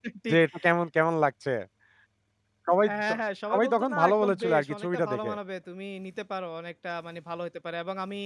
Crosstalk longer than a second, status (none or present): present